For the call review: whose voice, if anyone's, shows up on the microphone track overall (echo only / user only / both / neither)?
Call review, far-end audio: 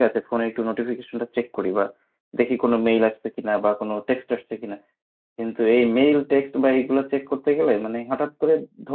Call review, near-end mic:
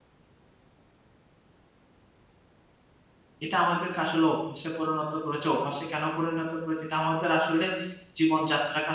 user only